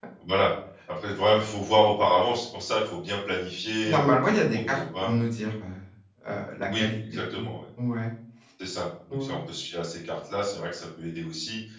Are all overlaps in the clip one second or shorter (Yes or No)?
No